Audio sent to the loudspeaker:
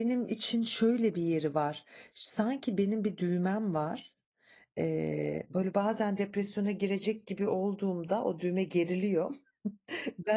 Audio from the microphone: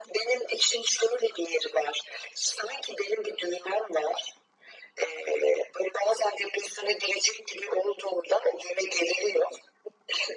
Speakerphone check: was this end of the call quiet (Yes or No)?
Yes